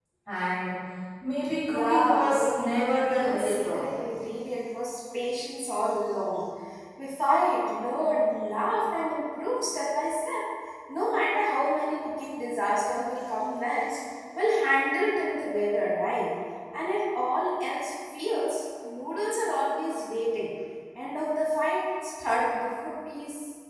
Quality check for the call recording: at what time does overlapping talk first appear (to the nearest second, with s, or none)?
2 s